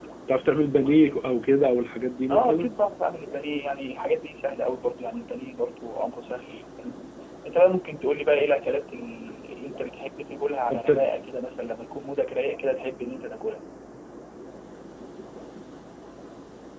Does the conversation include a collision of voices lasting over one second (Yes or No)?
No